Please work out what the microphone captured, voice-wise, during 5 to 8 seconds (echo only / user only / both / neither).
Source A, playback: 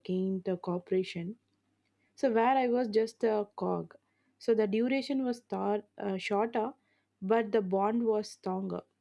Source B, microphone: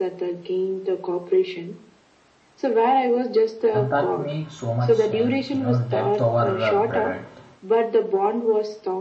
both